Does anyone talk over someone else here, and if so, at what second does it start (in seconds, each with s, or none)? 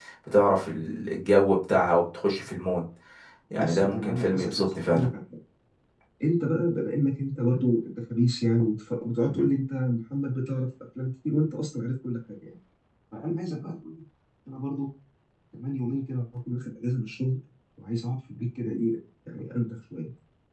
3.6 s